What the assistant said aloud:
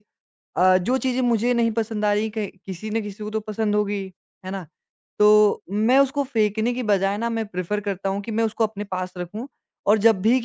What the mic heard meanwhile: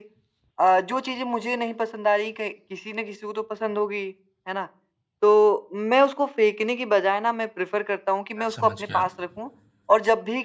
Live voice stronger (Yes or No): No